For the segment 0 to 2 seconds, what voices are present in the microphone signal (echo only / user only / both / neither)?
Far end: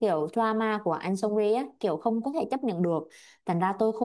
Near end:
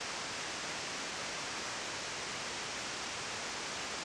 neither